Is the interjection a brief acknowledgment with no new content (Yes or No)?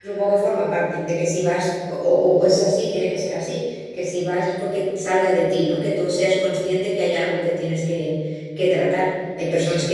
Yes